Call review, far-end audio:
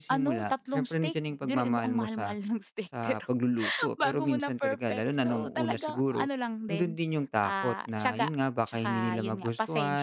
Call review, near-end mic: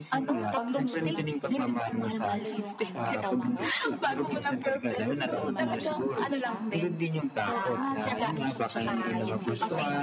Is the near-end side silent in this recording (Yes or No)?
No